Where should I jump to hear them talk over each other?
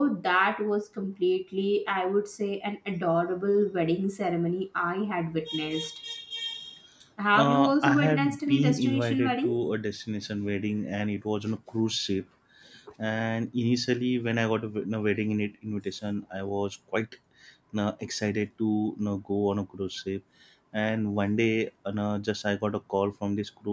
7.3 s

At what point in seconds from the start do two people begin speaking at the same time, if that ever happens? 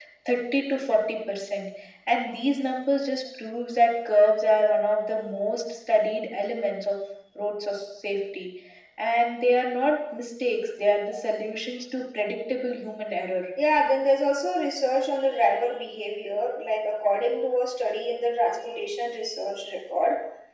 none

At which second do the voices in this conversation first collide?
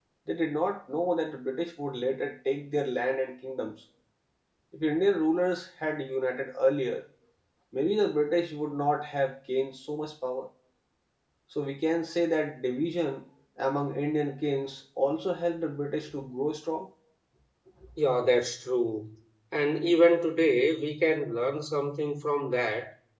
none

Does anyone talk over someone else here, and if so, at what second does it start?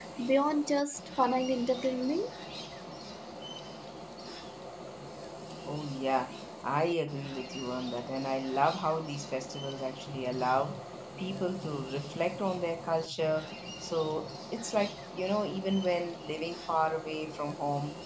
none

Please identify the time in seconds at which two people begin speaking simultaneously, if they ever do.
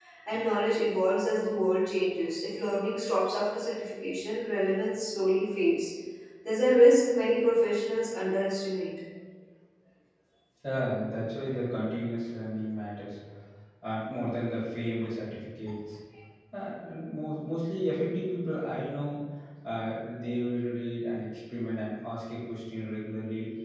none

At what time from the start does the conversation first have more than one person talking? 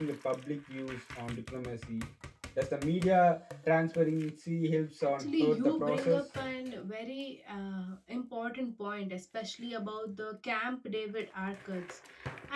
5.0 s

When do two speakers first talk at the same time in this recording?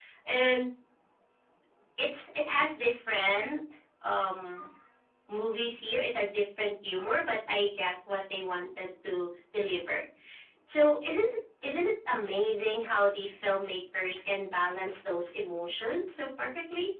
none

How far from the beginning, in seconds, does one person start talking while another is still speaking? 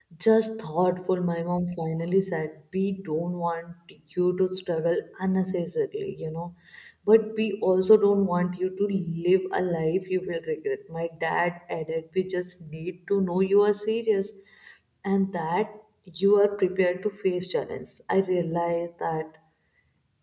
none

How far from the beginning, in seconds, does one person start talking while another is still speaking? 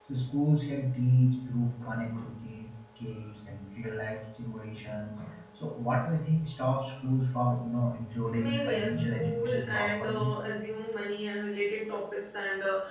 8.3 s

